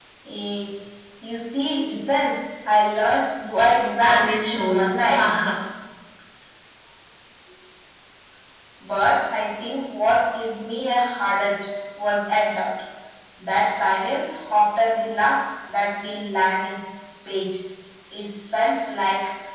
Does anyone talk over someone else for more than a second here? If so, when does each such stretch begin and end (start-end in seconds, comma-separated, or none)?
4.0-5.3